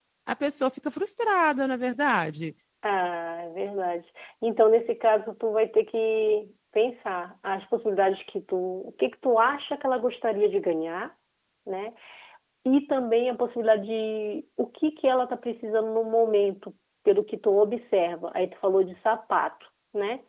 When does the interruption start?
none

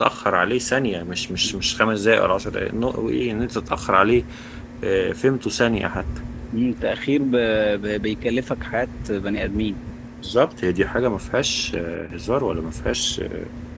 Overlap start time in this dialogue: none

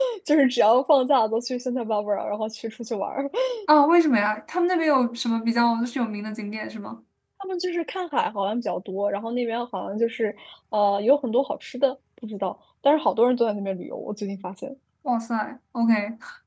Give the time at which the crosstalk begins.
none

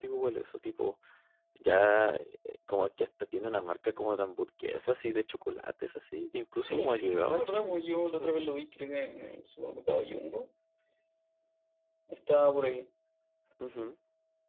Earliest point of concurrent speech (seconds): 7 s

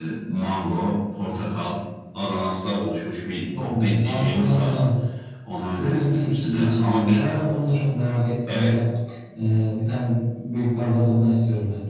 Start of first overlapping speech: 4 s

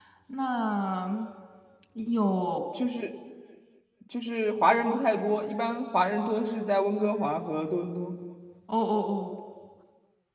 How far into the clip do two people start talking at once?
none

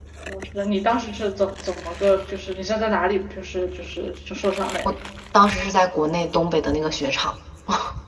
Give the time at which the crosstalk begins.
none

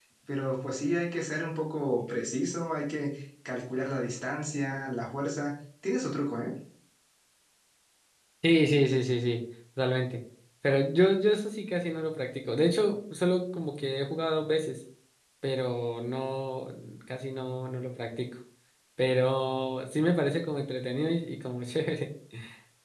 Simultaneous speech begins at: none

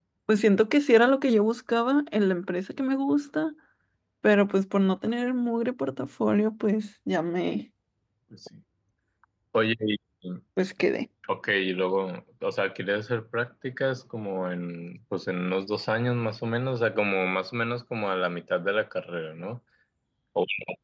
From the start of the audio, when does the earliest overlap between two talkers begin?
none

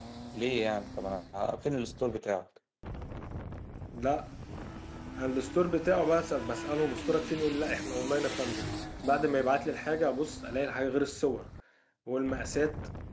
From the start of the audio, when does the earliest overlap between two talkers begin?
none

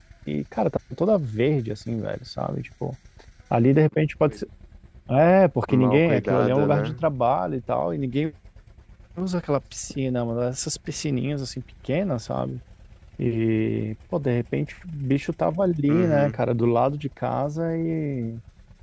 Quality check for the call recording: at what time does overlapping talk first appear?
6 s

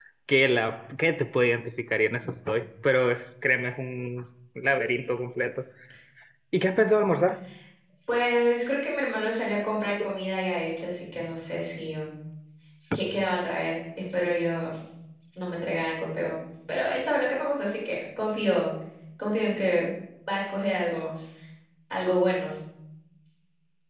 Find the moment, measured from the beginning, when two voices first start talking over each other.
none

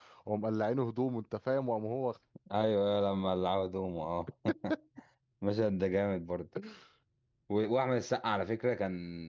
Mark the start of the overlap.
none

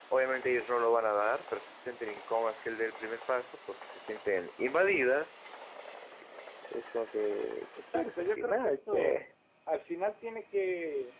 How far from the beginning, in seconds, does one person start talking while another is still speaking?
8 s

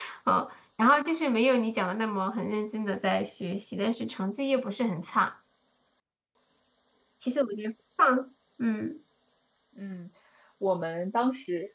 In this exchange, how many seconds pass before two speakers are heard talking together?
none

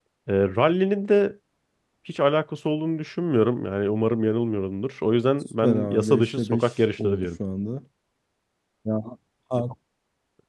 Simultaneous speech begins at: 6 s

